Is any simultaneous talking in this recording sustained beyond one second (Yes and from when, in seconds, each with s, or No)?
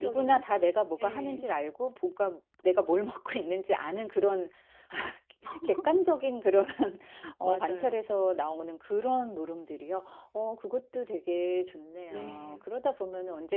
No